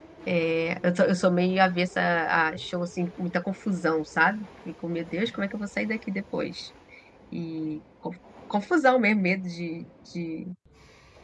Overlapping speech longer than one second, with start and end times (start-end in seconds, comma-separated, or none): none